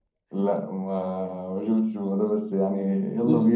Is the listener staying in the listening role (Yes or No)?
No